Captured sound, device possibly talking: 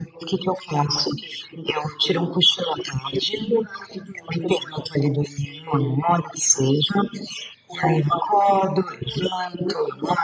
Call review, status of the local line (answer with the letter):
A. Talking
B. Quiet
B